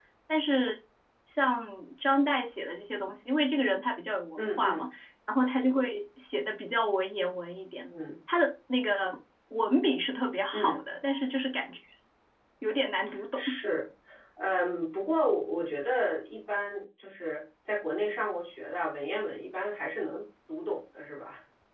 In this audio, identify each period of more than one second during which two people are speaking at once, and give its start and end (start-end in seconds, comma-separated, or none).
none